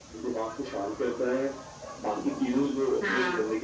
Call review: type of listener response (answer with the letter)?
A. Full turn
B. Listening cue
B